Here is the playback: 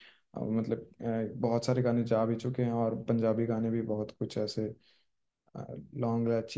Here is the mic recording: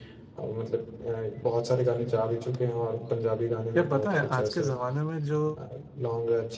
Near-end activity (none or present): present